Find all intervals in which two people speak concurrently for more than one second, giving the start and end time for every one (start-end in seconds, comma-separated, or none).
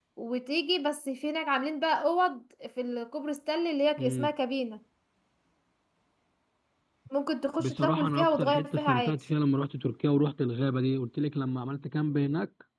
7.6-9.2